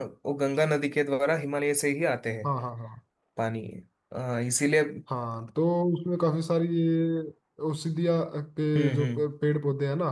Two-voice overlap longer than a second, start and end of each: none

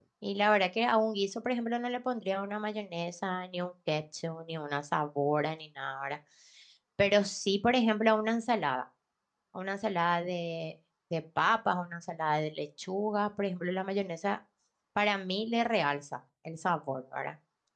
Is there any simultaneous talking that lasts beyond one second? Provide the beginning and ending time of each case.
none

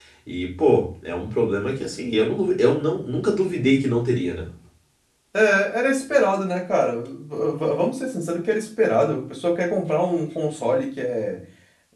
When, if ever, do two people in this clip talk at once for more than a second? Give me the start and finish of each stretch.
none

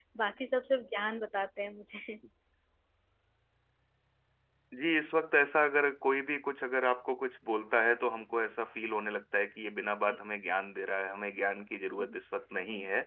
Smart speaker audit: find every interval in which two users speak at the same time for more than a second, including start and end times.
none

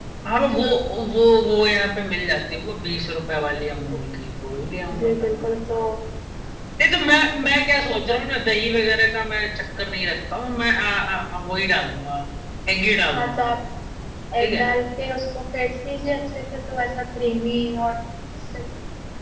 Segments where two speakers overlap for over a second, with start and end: none

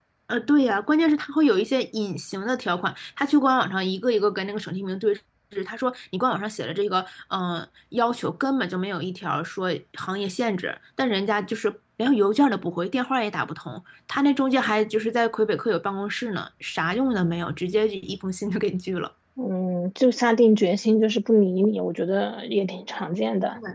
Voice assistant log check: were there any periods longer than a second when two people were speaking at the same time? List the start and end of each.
none

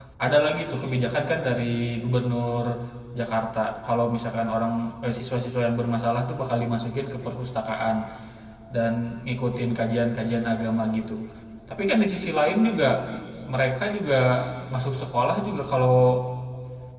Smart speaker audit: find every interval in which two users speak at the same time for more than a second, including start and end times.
none

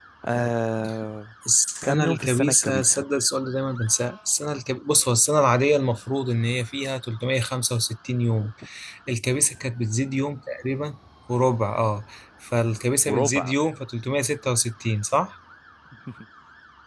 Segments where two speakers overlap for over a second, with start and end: 1.8-3.0

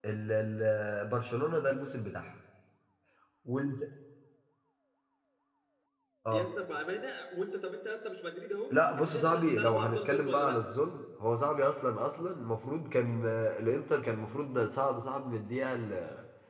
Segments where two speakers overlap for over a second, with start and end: 8.7-10.6

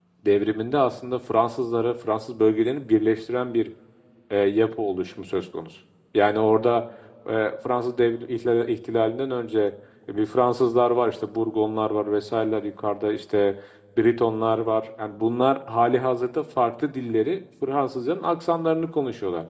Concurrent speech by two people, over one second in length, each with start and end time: none

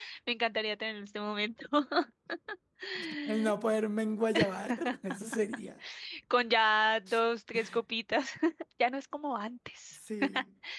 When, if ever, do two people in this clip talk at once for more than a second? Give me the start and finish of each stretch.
none

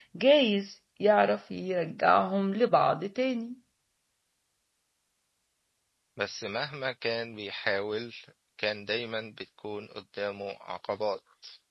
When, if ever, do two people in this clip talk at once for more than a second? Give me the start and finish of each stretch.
none

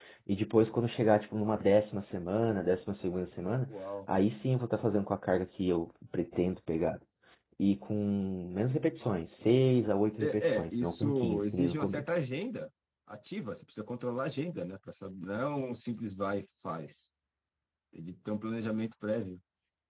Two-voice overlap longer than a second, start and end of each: 10.2-12.0

